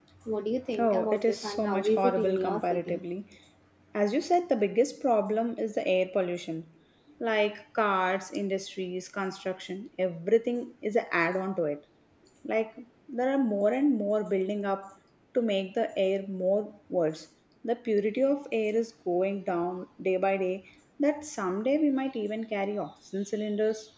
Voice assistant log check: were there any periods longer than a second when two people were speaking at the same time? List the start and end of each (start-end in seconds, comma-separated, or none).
0.8-3.0